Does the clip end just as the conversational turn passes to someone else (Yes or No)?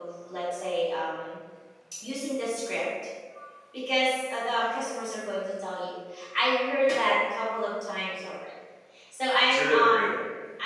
No